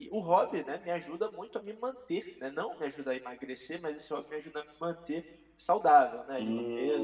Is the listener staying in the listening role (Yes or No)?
No